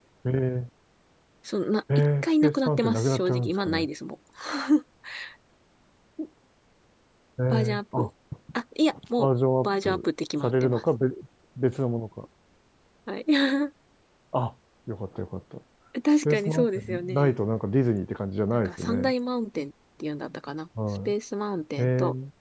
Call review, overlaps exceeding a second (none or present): present